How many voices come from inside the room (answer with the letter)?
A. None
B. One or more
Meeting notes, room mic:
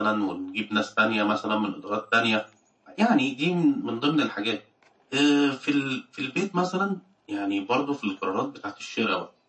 A